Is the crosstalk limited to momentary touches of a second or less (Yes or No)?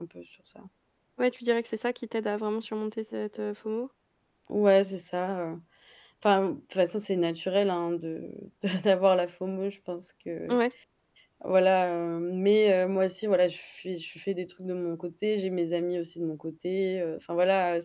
Yes